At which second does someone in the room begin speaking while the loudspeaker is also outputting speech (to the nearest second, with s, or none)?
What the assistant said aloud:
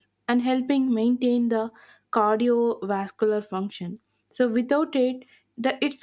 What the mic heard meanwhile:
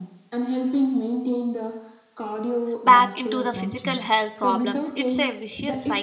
3 s